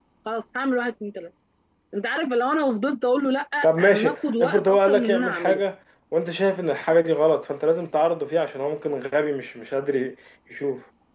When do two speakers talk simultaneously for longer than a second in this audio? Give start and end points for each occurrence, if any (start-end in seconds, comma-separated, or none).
3.6-5.6